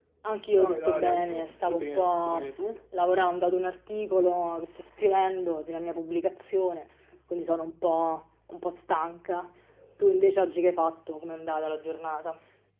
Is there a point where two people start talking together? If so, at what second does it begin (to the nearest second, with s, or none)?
1 s